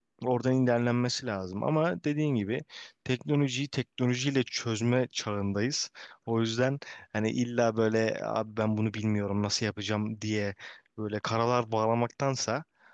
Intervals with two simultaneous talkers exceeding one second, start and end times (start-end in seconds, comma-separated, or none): none